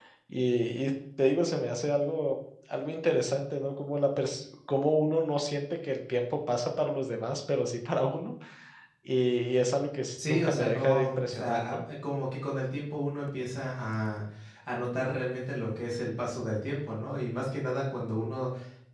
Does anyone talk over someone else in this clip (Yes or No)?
Yes